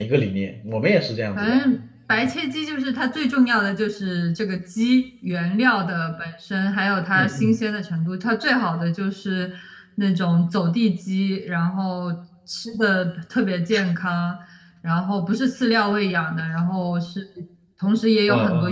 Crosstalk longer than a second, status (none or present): none